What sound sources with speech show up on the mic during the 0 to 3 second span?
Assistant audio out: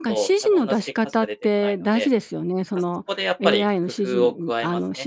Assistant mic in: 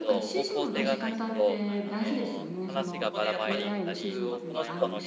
both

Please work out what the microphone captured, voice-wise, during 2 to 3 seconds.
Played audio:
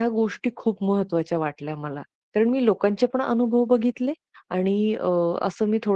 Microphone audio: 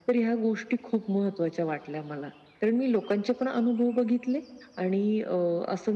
echo only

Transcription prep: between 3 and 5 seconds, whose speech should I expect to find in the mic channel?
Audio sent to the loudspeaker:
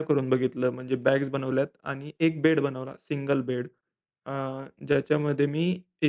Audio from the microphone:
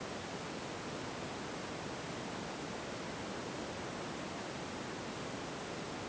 neither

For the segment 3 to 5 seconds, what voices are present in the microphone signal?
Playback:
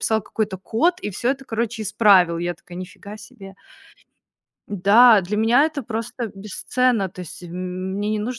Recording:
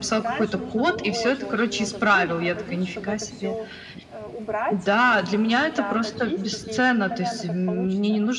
both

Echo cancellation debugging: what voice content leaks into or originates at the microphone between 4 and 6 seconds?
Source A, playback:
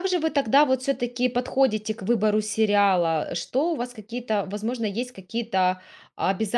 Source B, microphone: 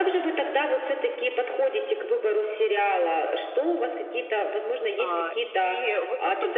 both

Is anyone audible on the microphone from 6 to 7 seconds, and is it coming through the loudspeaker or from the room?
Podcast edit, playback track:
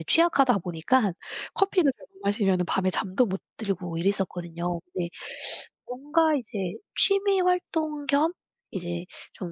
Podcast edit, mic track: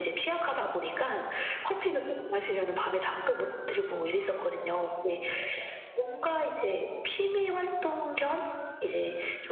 echo only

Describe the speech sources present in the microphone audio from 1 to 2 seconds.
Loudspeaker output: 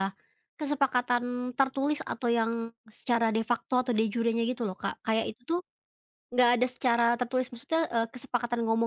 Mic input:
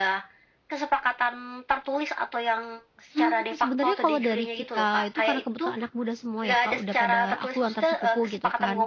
echo only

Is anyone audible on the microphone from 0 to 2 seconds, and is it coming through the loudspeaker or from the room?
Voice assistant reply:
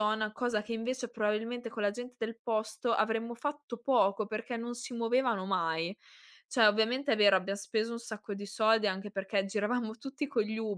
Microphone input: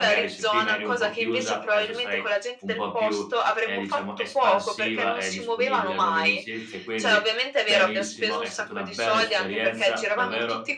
both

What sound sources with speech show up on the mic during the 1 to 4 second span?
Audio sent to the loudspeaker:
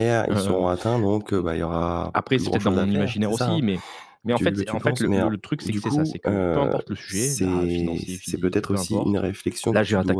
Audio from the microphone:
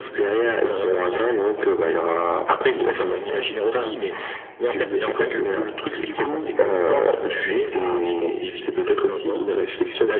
echo only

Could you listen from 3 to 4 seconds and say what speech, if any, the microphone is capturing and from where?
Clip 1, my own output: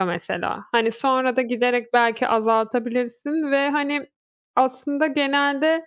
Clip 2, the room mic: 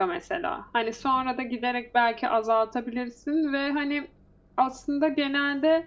echo only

